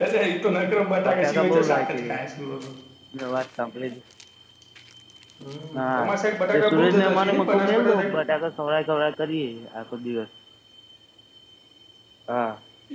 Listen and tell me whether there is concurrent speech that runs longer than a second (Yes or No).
Yes